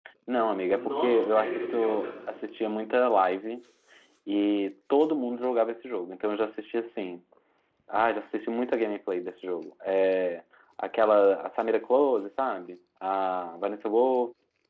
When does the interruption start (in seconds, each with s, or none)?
0.7 s